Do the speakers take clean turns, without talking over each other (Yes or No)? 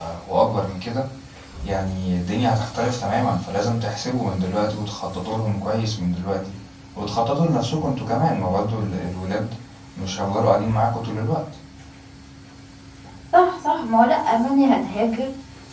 Yes